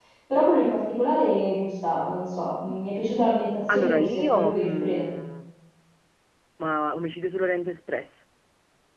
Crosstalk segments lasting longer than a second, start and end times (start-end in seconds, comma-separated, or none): 3.7-5.1